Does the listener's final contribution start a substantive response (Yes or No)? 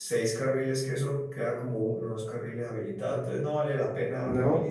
No